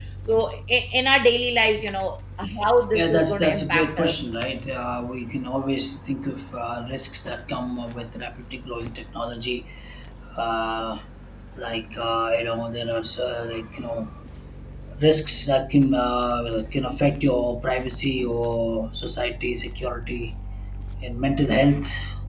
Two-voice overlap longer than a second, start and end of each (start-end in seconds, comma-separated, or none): 2.9-4.2